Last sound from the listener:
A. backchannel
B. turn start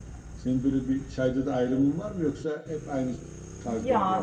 B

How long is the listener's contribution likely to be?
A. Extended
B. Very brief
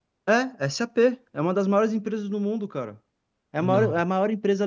B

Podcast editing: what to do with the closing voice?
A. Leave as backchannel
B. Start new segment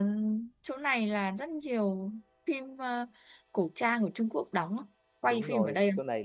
B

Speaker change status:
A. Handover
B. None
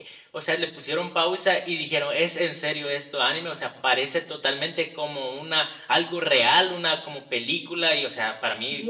A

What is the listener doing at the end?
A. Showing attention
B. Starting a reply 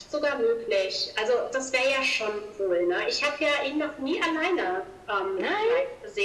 A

